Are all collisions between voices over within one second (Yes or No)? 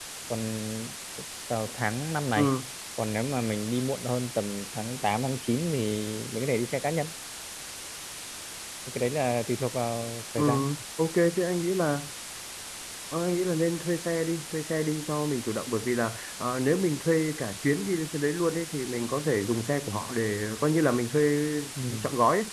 Yes